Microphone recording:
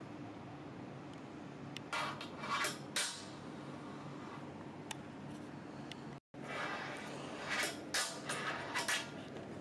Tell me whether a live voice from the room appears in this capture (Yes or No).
No